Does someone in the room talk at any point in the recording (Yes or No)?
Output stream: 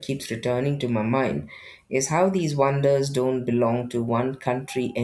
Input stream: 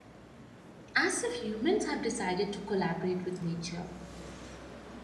Yes